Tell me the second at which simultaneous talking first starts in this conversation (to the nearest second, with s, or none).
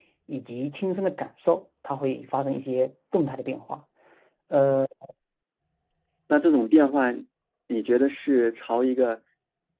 none